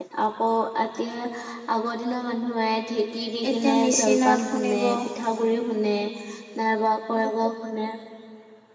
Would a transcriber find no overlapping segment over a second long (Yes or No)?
No